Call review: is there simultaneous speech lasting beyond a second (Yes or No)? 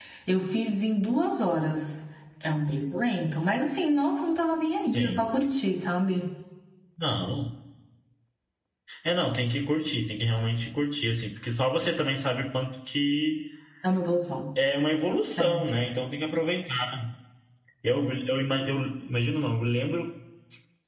No